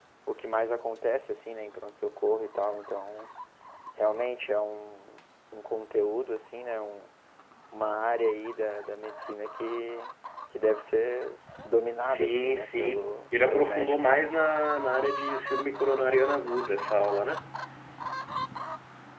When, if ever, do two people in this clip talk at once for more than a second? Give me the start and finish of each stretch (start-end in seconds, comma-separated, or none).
12.0-14.0